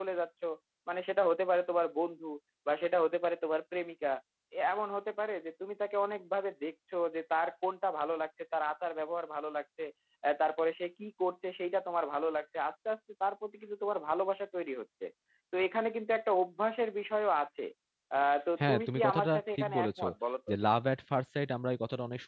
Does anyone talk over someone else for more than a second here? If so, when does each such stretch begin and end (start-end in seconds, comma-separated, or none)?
18.7-20.0